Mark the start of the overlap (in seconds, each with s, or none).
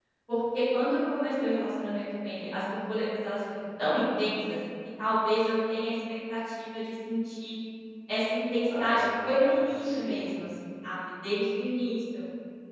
8.8 s